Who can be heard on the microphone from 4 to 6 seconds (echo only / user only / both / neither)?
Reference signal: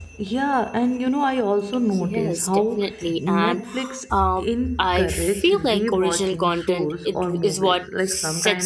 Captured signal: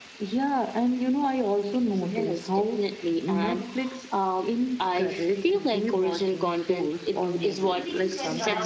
echo only